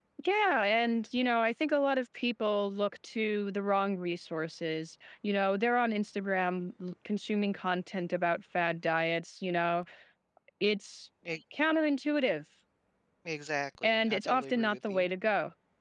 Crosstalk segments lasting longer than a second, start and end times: 13.8-15.1

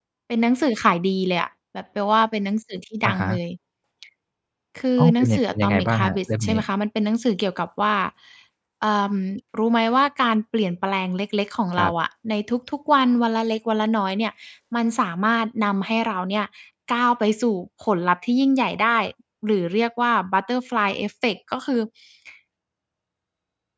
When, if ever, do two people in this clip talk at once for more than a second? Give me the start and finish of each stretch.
5.0-6.6

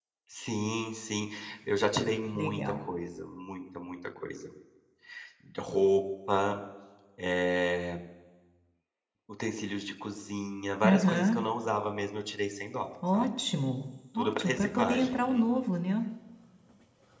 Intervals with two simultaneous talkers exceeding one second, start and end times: 14.2-15.6

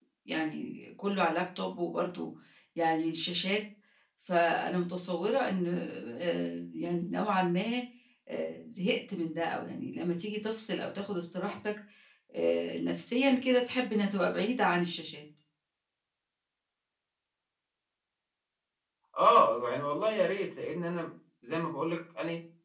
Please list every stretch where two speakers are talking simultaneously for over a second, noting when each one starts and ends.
none

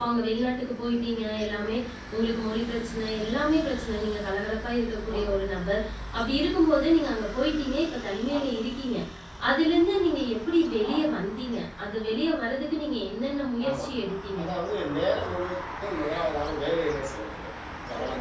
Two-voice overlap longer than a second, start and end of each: none

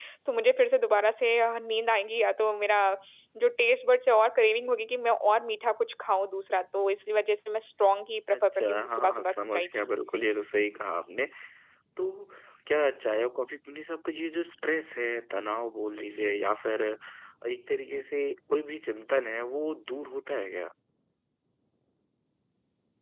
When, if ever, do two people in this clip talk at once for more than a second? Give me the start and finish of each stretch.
8.3-9.7

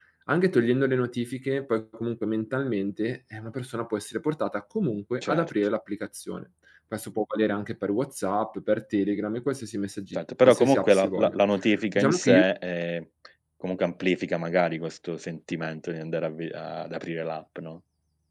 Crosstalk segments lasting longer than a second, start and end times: 10.1-11.3

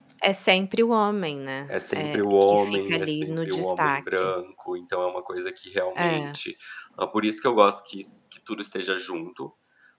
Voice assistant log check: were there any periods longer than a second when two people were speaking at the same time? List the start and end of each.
1.7-4.3

